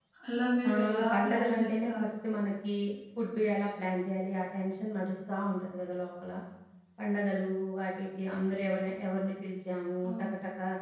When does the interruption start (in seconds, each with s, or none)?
0.7 s